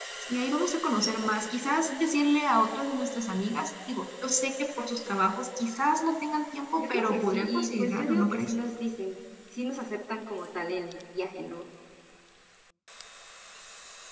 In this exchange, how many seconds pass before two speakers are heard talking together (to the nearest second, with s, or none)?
7 s